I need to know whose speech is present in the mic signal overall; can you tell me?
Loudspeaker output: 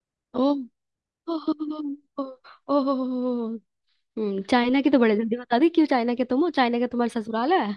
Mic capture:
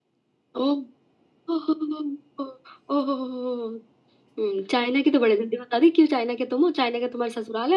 echo only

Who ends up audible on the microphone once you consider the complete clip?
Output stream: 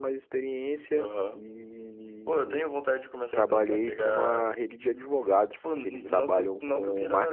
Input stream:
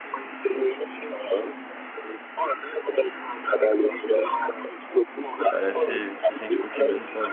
both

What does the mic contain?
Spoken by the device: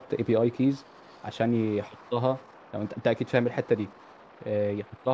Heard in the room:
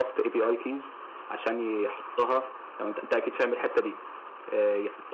echo only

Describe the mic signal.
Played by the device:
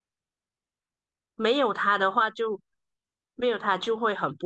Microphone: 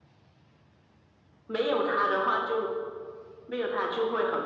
echo only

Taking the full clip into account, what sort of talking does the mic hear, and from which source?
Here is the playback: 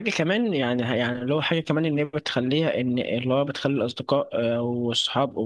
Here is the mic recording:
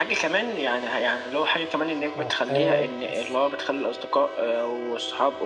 both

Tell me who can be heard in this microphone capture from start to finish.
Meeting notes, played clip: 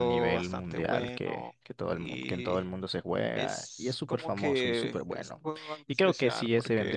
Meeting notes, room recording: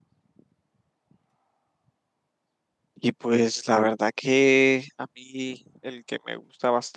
user only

